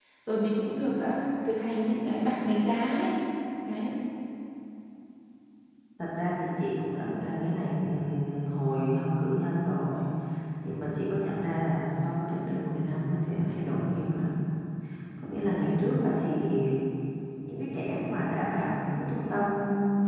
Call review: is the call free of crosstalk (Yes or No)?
Yes